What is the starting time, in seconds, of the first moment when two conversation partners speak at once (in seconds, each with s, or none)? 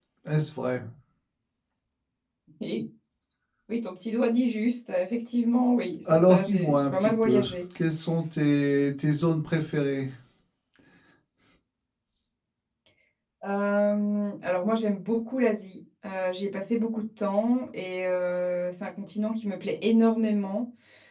6.0 s